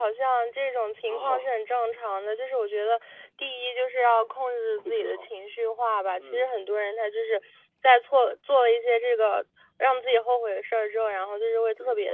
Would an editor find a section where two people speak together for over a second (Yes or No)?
No